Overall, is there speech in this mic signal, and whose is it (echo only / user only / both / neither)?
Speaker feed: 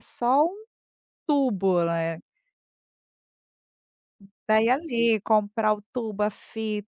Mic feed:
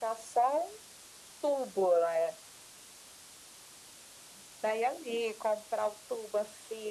echo only